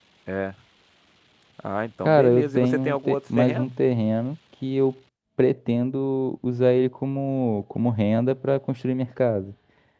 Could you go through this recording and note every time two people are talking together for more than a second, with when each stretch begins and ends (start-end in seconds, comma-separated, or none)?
2.0-3.7